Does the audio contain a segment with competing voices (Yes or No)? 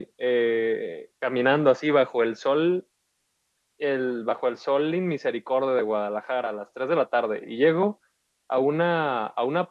No